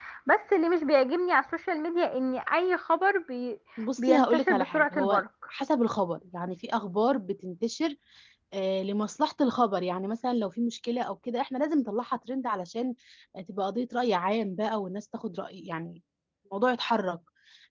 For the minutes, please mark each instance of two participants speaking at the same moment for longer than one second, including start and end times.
4.0-5.2

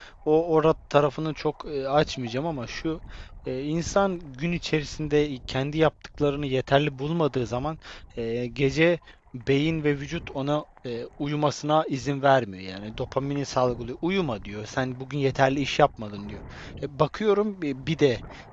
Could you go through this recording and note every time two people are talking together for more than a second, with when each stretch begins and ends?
none

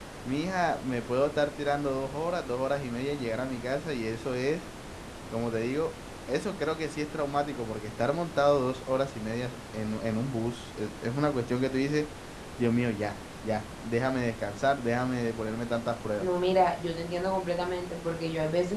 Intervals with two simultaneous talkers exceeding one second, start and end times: none

